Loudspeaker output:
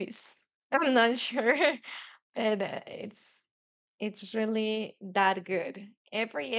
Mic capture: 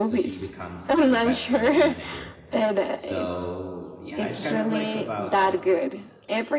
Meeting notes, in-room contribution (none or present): present